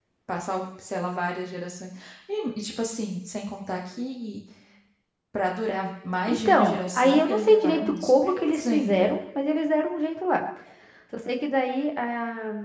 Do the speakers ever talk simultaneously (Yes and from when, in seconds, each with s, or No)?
Yes, from 6.3 s